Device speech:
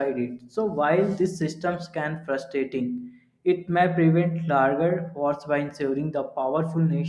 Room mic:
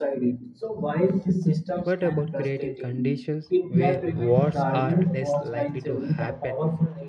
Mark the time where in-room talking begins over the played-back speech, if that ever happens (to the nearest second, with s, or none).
2 s